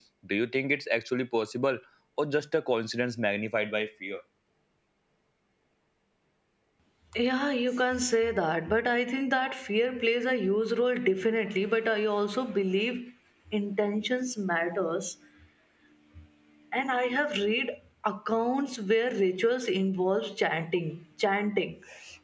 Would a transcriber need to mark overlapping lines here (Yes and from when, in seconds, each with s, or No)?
No